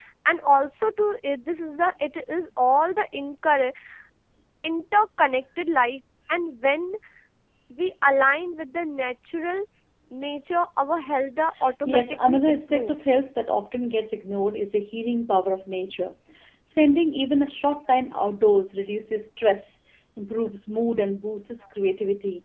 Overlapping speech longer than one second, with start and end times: 11.8-13.1

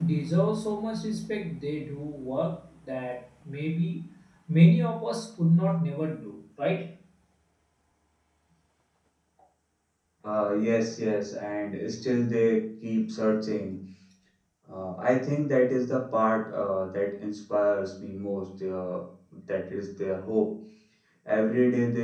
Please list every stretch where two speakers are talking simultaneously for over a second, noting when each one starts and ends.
none

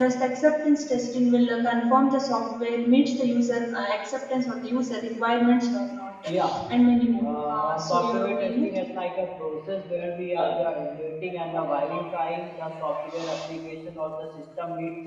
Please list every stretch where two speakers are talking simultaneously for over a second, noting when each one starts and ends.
7.2-8.7

